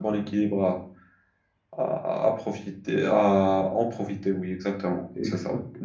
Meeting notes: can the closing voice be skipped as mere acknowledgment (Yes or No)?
No